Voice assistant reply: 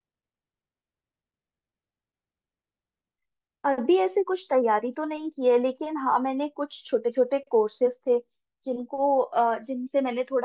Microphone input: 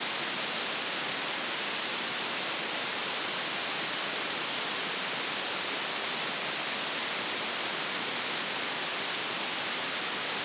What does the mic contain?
neither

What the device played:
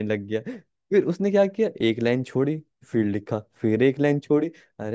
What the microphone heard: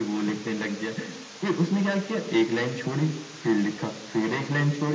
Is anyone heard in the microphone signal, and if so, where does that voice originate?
echo only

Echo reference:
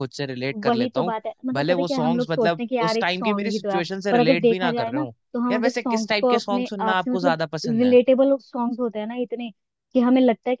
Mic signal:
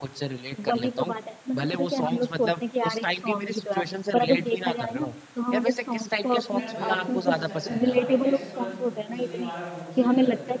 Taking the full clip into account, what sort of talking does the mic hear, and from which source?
both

